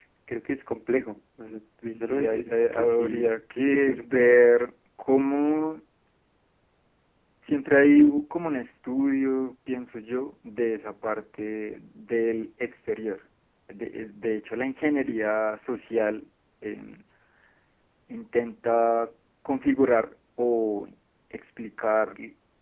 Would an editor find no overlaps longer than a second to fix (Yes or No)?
No